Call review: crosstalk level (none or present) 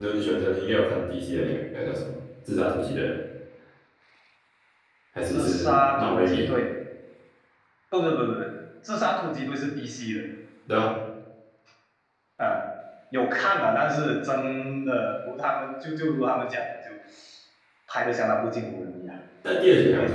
present